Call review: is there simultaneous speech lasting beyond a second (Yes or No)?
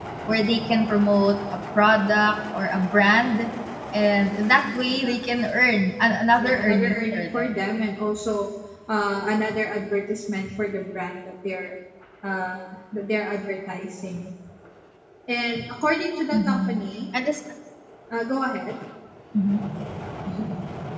Yes